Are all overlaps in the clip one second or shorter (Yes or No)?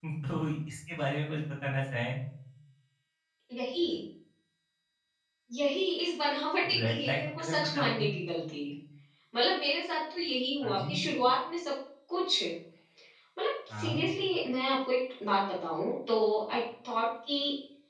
No